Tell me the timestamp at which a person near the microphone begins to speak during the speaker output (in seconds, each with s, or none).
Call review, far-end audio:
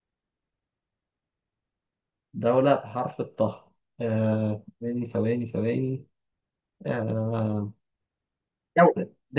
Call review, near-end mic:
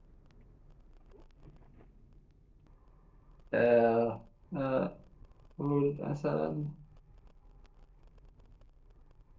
3.5 s